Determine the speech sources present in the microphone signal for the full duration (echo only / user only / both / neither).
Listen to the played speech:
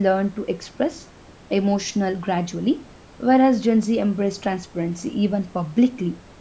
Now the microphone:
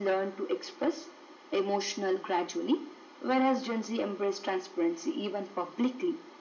echo only